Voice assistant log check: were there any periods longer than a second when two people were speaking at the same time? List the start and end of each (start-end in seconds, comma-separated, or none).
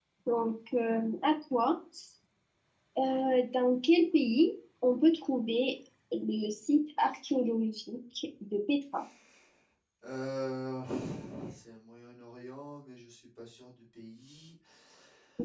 none